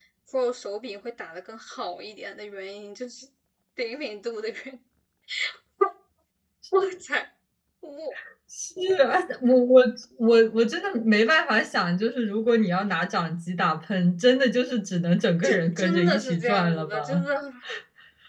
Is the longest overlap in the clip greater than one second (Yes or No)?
Yes